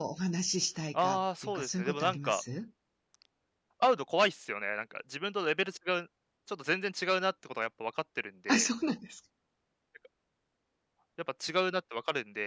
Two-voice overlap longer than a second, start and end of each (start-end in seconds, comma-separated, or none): 1.0-2.4